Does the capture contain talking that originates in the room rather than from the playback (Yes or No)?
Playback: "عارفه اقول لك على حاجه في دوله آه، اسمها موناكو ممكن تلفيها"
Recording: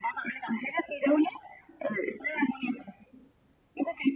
No